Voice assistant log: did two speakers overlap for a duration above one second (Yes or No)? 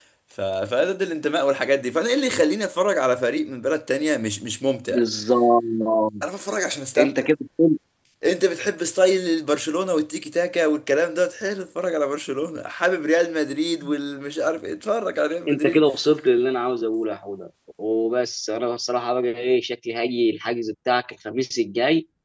No